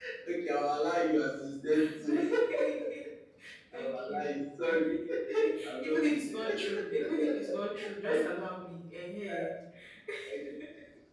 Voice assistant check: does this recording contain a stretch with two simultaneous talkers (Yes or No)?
Yes